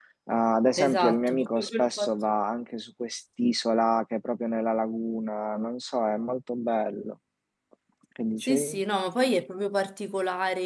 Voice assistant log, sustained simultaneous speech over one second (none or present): present